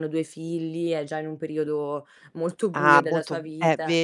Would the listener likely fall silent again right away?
No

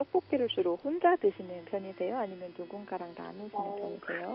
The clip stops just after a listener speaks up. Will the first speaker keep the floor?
No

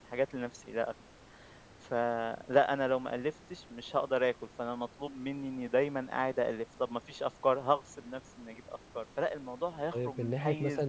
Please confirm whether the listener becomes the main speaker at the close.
Yes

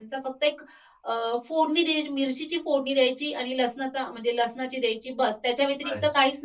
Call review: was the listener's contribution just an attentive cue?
Yes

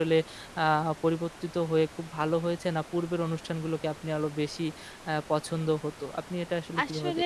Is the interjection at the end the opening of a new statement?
Yes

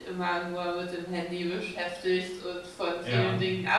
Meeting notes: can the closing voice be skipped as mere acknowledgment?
Yes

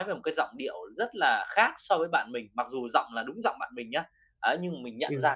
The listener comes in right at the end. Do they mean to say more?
No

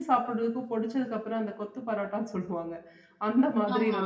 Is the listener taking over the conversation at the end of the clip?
No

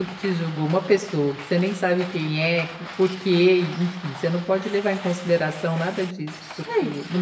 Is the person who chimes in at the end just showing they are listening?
Yes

